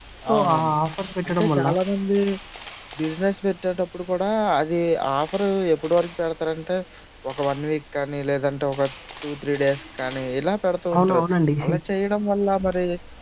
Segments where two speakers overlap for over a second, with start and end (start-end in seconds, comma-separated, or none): none